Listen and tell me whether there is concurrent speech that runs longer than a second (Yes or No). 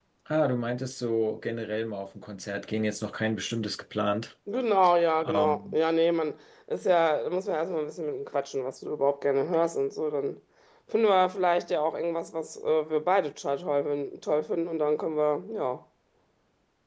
No